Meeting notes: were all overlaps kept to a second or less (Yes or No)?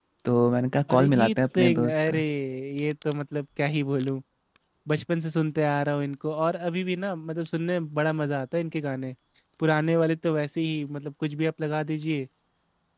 No